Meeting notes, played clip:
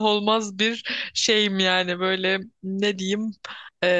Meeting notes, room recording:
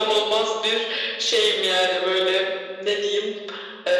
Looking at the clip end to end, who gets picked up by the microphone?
echo only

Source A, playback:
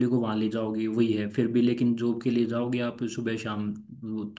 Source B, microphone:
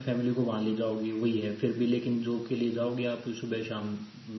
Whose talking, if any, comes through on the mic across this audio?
echo only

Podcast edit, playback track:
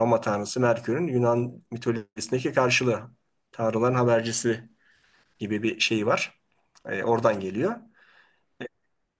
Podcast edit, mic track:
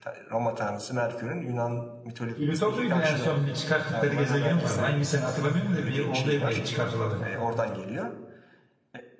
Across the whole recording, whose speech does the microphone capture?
both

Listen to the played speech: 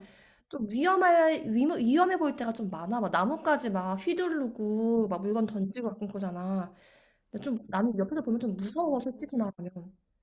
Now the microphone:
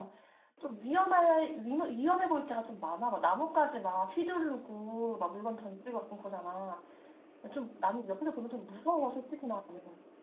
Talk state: echo only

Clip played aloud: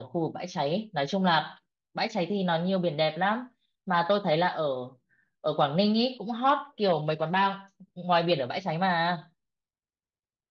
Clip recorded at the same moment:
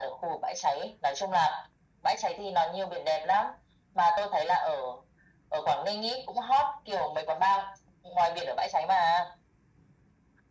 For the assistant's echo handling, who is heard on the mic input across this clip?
echo only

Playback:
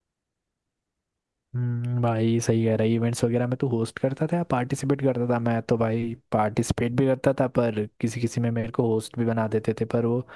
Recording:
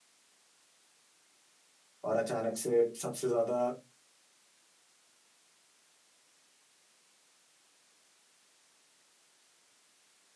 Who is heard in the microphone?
user only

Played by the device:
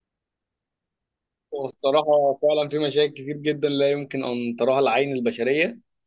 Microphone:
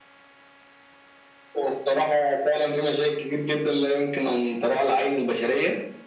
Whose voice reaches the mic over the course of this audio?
echo only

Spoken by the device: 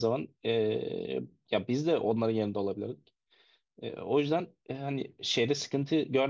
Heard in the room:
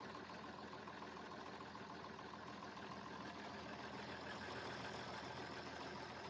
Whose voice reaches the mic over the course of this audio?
neither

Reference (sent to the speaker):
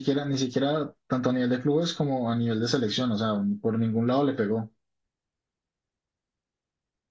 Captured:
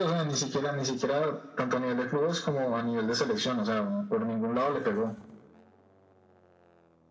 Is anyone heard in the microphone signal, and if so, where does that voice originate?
echo only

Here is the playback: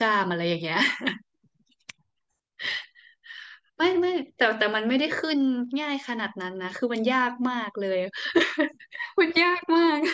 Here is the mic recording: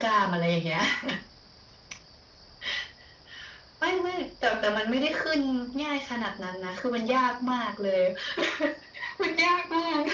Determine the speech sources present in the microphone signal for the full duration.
echo only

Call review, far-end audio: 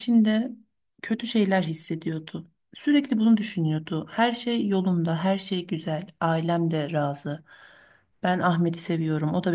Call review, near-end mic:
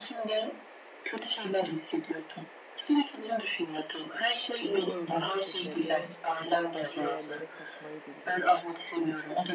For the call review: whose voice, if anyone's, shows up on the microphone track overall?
both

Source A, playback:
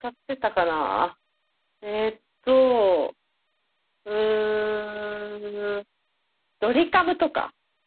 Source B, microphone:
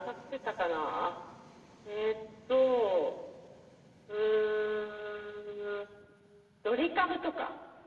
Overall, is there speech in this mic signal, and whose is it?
echo only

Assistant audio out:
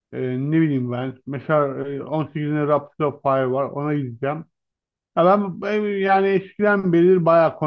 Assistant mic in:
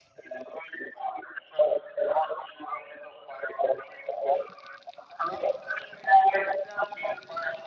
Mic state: echo only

